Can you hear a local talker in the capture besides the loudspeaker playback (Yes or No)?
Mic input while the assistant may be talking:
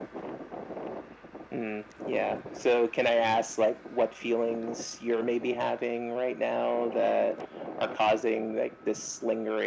No